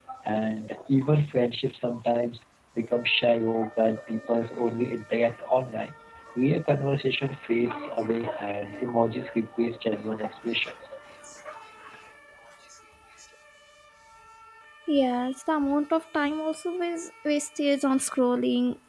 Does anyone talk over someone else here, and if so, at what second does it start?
none

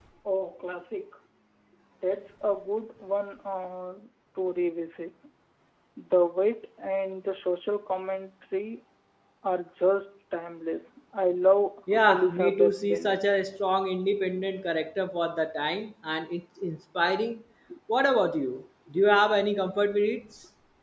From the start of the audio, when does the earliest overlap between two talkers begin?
12 s

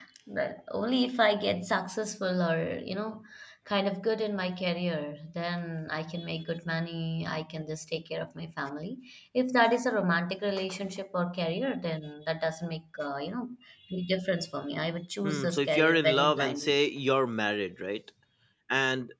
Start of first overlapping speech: 15 s

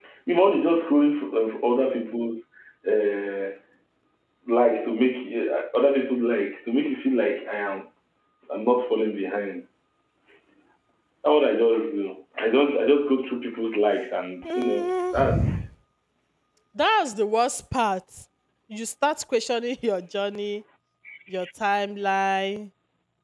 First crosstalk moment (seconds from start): 14 s

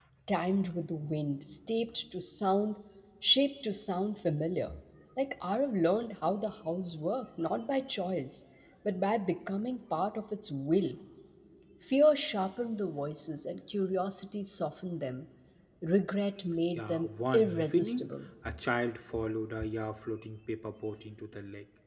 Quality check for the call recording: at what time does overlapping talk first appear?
17 s

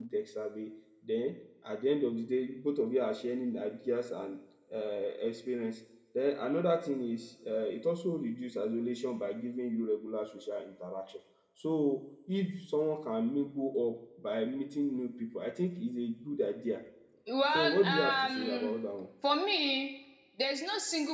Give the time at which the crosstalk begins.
18 s

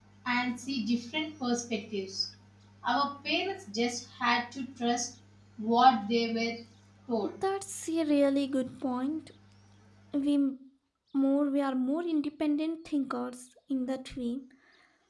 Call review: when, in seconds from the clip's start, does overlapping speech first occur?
none

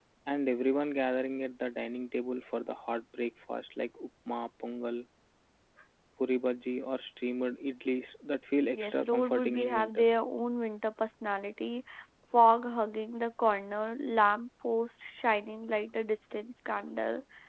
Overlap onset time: 9 s

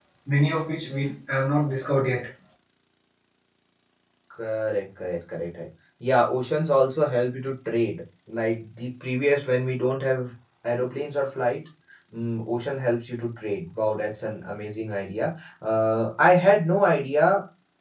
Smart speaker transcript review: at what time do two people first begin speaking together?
none

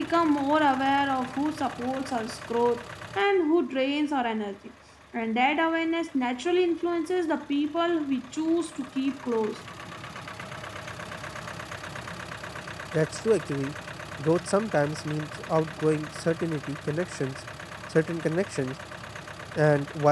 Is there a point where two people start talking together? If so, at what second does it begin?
none

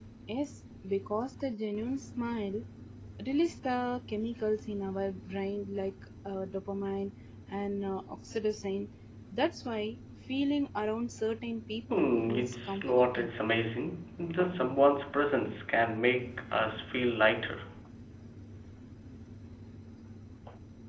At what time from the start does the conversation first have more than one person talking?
12 s

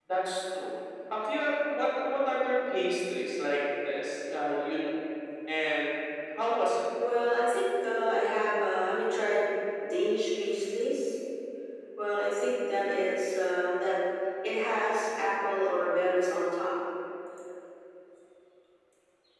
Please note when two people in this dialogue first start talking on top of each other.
none

